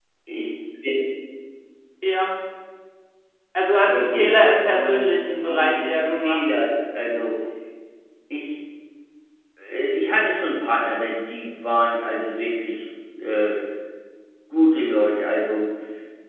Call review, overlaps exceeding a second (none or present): present